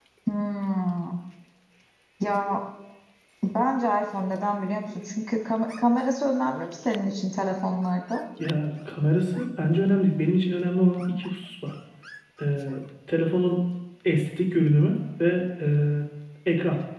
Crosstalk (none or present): none